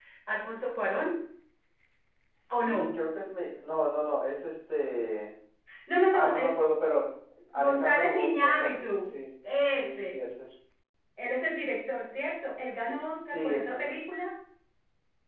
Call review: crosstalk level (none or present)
present